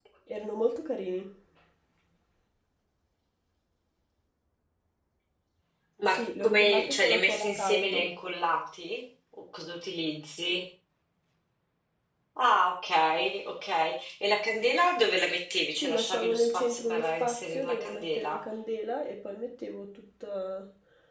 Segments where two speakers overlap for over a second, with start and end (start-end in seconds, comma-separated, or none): 6.1-8.0, 15.8-18.4